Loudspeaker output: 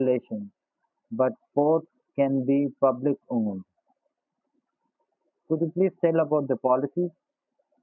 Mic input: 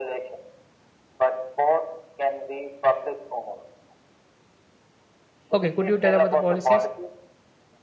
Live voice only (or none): okay, could you tell about the policies?